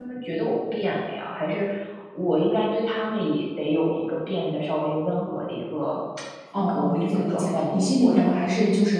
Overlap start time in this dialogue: 6.5 s

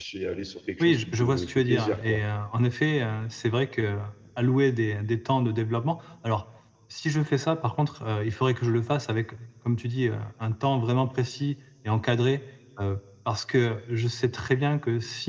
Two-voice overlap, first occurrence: 0.8 s

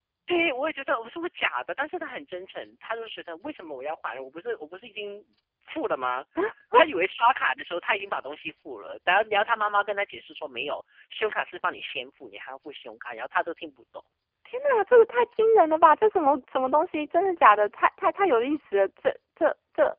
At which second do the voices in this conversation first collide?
none

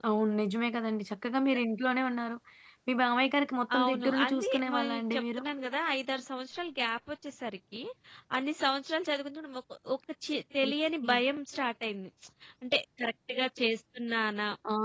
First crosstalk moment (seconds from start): 3.8 s

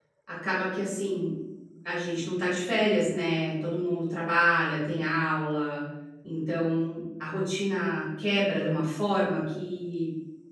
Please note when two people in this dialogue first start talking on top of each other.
none

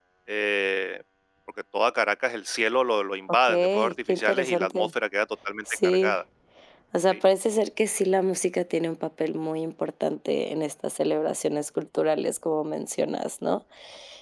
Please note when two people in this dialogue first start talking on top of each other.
3.4 s

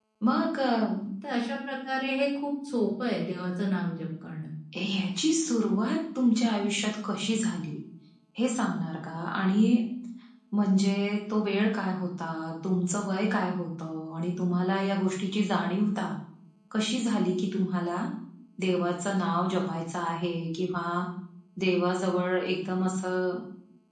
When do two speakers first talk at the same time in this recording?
none

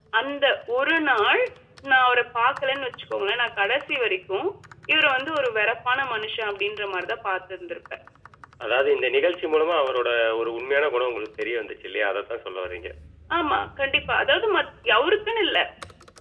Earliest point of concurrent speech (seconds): none

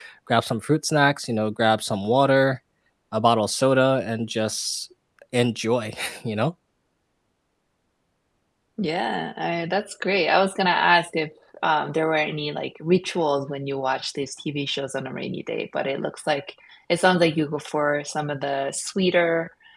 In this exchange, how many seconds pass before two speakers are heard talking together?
none

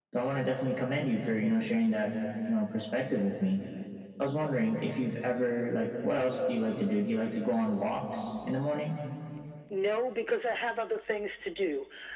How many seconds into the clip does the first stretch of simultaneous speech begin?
none

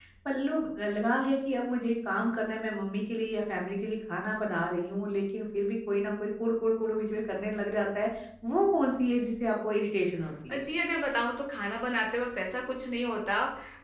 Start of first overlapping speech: none

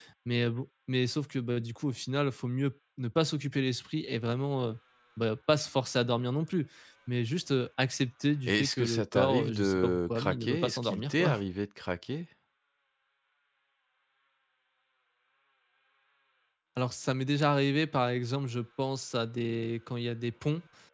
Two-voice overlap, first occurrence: 8.5 s

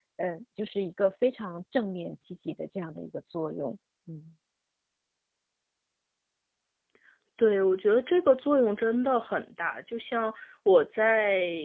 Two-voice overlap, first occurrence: none

